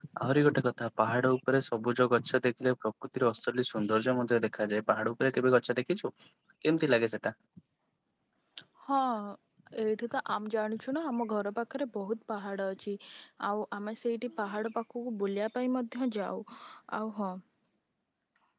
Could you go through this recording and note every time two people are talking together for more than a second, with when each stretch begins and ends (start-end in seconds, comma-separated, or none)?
none